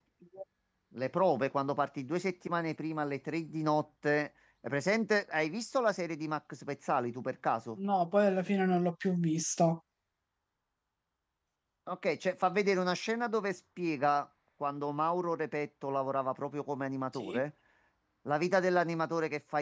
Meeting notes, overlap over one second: none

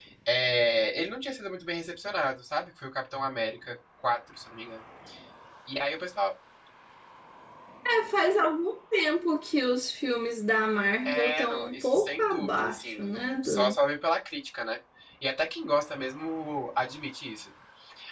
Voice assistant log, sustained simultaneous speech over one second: present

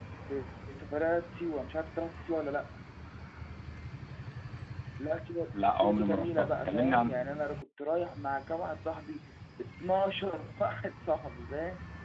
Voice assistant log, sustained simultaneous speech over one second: present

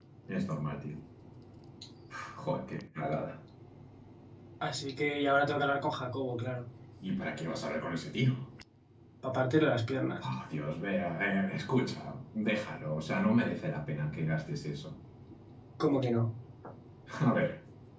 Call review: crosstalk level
none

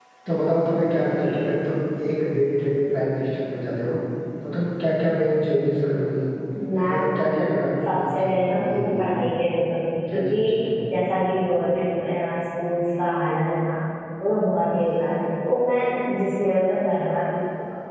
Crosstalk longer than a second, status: present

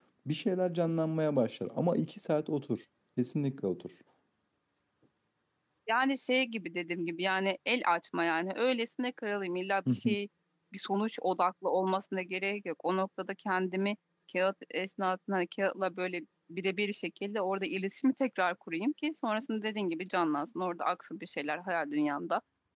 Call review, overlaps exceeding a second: none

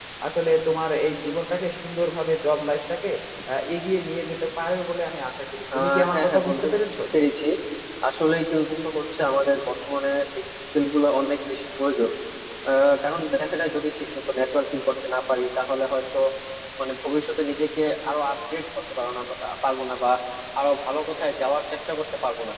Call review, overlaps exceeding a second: present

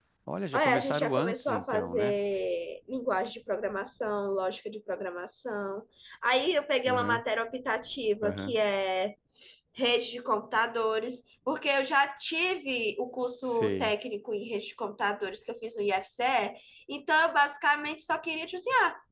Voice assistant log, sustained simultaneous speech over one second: present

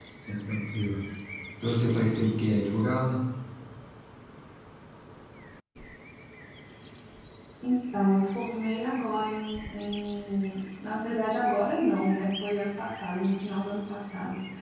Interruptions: none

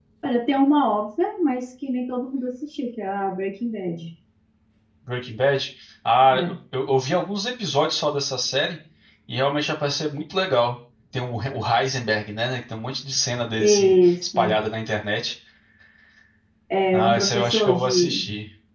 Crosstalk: present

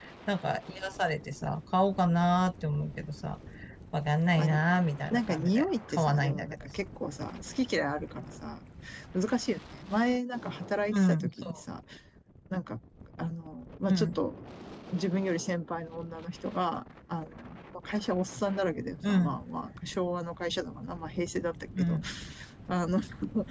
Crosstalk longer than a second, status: present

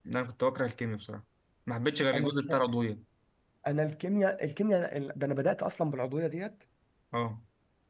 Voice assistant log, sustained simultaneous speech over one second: none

